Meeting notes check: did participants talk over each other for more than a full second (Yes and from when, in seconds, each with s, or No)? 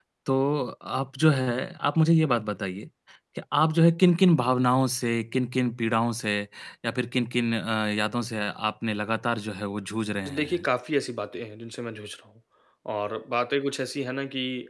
No